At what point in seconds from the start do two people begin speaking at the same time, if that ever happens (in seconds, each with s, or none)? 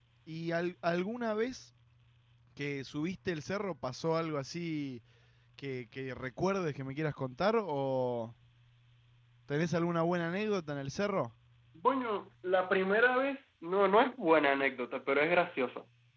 none